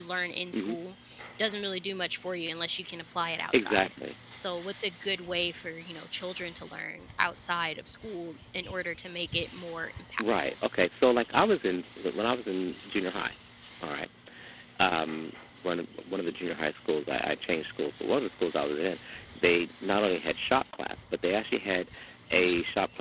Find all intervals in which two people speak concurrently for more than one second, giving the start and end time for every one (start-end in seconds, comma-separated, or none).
none